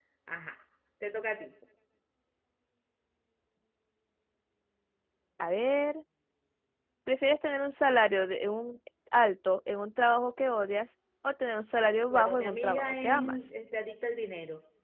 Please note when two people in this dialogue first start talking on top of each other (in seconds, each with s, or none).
12.1 s